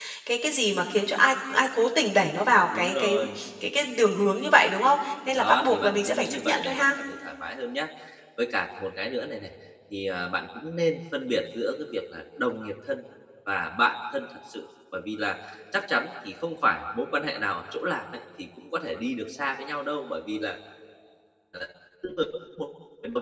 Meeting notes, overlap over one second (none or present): present